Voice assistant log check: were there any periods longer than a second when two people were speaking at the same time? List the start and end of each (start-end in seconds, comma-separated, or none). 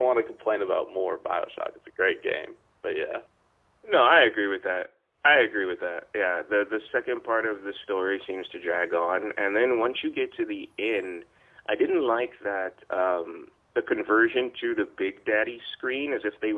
none